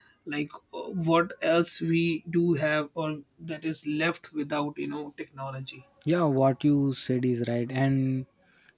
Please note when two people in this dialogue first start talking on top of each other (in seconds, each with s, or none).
none